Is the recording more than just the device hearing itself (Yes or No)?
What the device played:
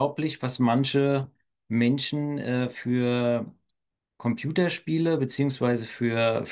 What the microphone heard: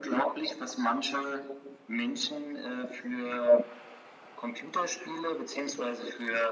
No